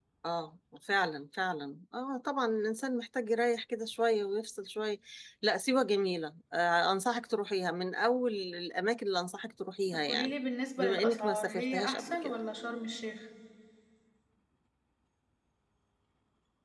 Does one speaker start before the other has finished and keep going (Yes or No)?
Yes